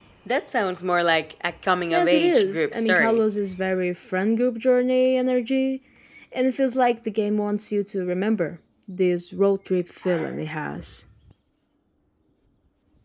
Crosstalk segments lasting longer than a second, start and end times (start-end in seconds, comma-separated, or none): 1.9-3.2